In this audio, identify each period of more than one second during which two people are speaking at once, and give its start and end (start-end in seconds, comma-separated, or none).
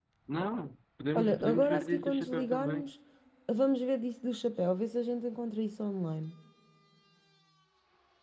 1.1-2.9